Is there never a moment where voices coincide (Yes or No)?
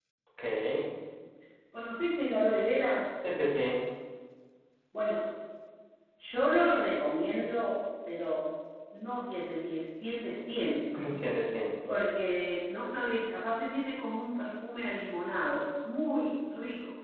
Yes